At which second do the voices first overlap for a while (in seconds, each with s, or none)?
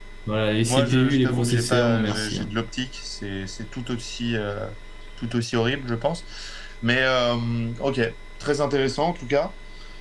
0.7 s